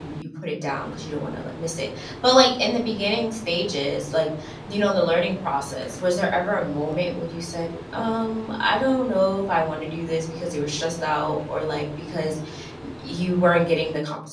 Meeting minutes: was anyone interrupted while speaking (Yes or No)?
No